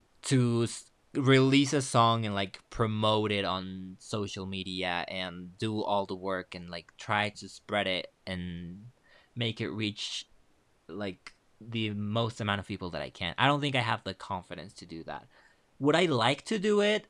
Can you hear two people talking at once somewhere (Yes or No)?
No